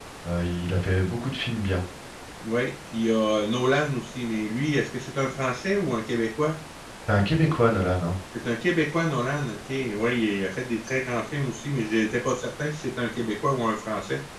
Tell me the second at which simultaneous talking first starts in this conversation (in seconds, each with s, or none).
none